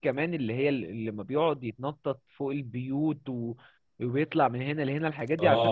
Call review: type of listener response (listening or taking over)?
taking over